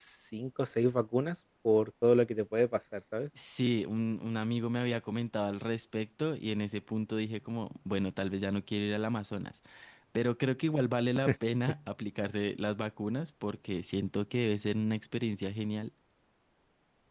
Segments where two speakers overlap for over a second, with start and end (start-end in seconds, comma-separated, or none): none